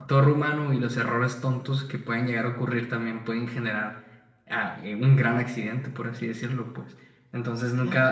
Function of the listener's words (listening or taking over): listening